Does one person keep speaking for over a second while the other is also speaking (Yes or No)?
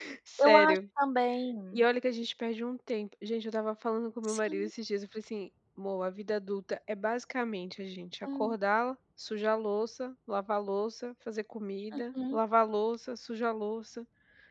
No